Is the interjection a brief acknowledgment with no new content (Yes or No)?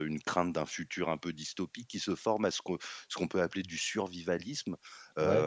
Yes